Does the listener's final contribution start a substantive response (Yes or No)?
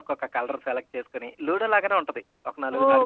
Yes